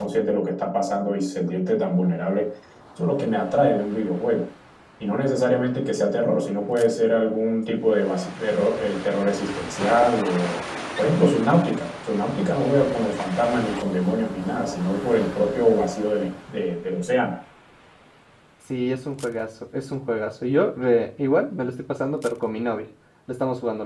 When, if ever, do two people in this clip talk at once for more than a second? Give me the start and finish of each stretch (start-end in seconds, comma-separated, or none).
none